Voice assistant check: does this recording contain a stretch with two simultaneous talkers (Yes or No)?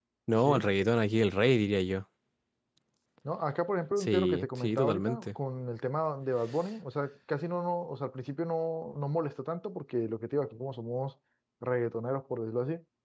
Yes